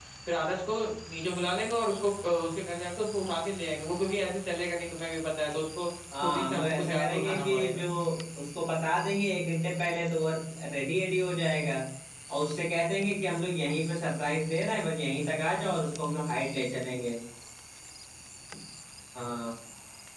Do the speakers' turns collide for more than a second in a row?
Yes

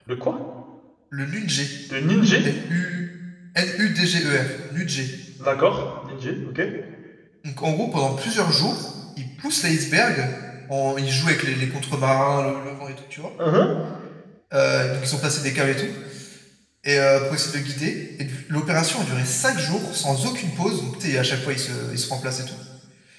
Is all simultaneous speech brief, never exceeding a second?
Yes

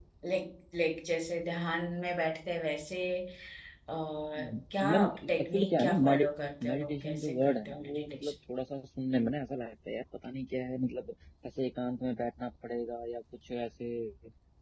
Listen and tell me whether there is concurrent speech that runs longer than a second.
Yes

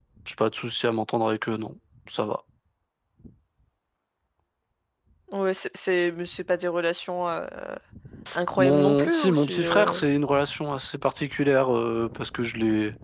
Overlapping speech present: Yes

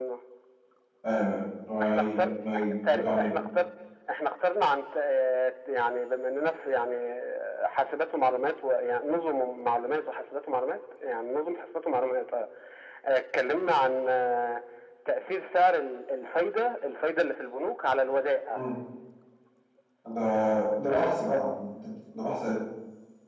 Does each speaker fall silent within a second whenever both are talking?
No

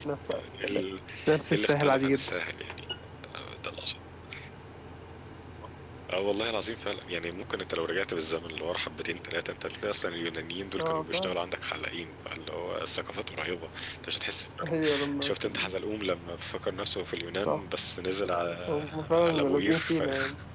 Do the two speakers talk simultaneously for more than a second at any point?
Yes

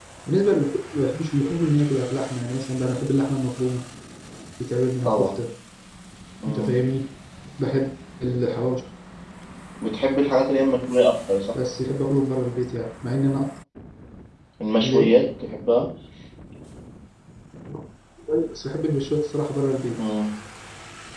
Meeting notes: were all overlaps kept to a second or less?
Yes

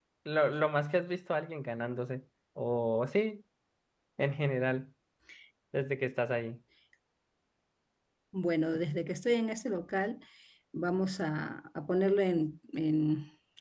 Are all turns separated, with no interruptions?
Yes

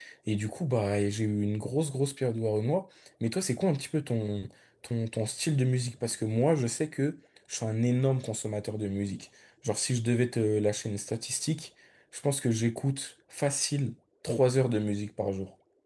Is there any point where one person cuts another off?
No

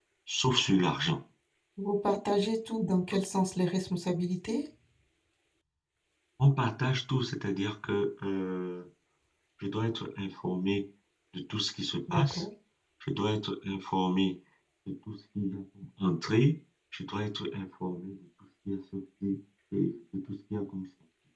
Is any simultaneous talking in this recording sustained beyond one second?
No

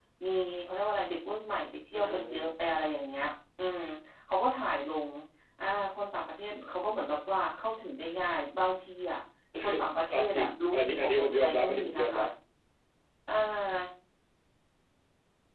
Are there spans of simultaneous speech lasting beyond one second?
Yes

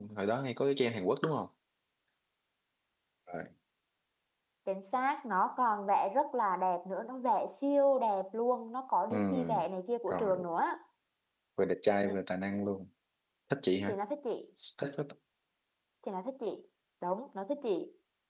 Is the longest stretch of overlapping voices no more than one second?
Yes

